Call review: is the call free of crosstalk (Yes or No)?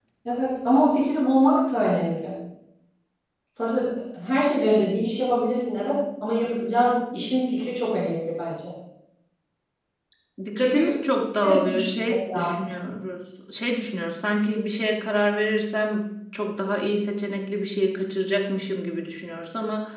No